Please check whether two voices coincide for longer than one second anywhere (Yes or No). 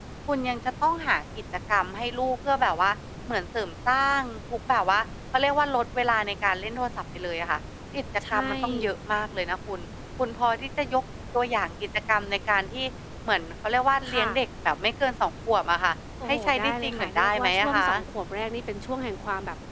Yes